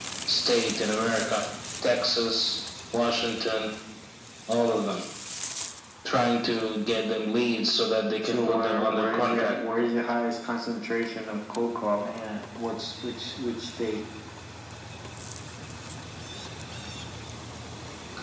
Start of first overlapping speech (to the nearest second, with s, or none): 8 s